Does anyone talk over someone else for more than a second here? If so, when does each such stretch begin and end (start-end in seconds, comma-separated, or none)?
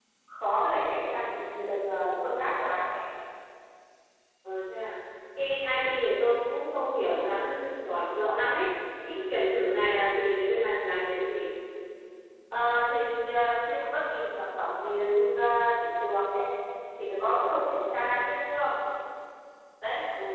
none